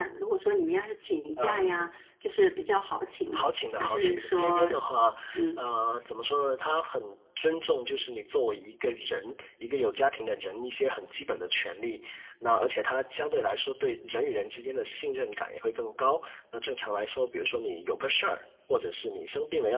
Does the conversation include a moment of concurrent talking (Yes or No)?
Yes